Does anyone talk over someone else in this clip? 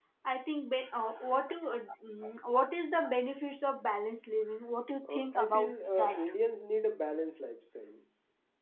Yes, from 5.0 s

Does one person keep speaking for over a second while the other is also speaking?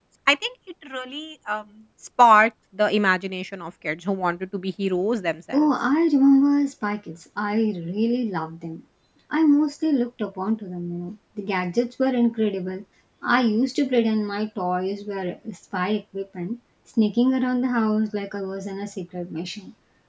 No

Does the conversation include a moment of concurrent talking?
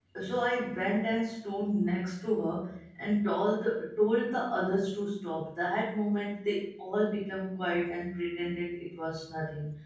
No

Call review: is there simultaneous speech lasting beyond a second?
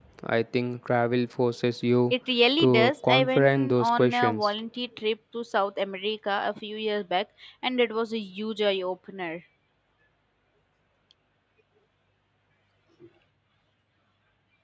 Yes, from 2.6 s

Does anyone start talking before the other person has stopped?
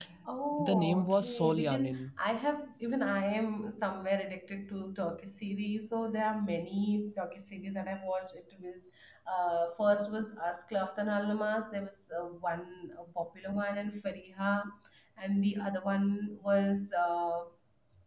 Yes, from 0.6 s

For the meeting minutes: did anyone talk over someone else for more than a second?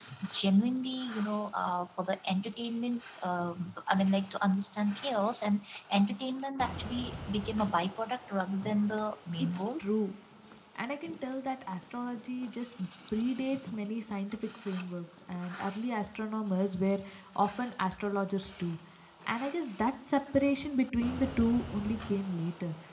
No

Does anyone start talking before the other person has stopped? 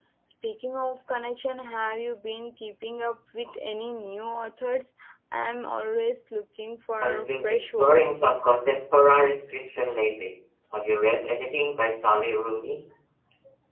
Yes, from 7.0 s

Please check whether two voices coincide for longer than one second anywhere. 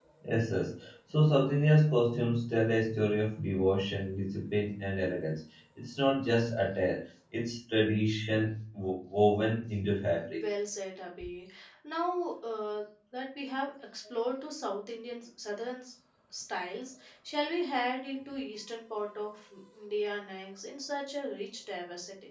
No

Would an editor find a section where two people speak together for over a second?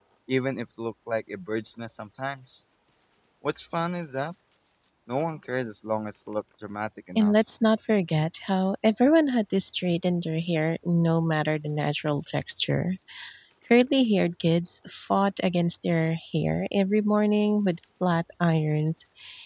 No

